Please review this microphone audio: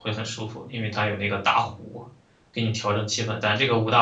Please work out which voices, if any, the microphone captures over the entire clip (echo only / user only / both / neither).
user only